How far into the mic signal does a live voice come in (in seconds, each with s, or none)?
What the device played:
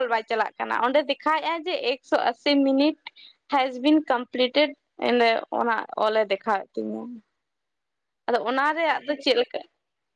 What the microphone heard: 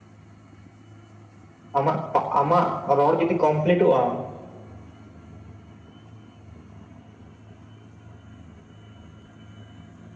1.8 s